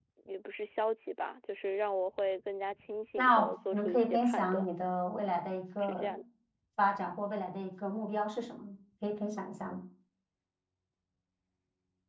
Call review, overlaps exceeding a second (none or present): present